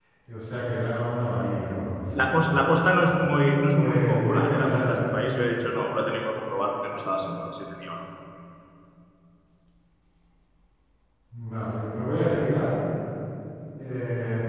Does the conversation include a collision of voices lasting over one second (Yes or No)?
Yes